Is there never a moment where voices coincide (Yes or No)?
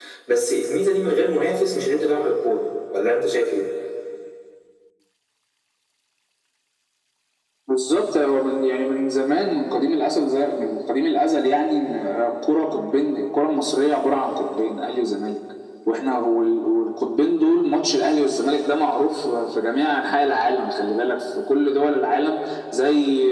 Yes